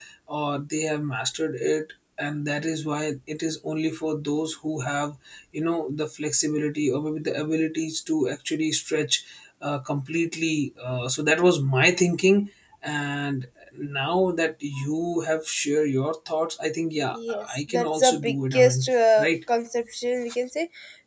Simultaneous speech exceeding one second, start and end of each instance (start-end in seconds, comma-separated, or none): 17.1-19.3